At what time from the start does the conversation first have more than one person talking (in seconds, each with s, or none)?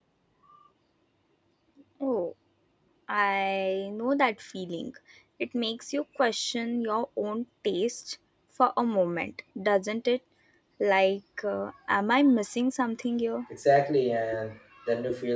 none